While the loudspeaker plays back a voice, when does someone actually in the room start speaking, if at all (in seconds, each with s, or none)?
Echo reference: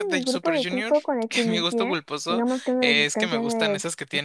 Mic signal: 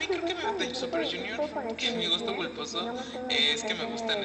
0.4 s